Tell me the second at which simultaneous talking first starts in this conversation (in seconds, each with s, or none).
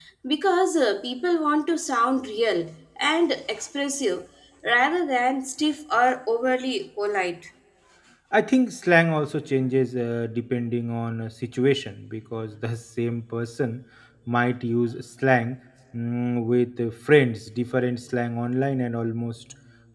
none